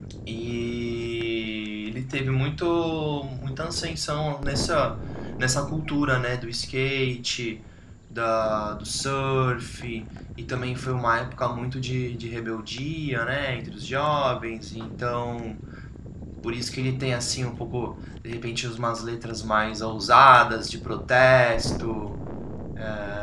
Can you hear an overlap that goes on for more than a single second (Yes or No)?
No